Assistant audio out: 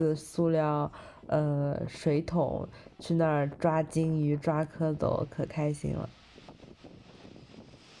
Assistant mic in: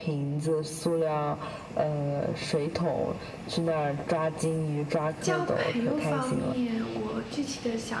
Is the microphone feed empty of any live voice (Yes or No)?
No